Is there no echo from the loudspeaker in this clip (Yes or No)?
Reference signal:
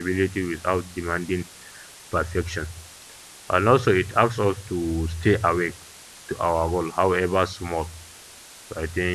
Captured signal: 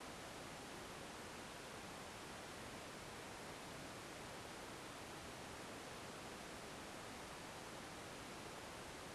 Yes